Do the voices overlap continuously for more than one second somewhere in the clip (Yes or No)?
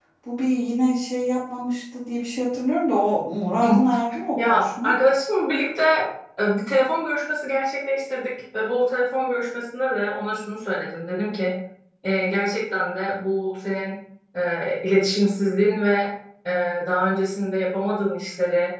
No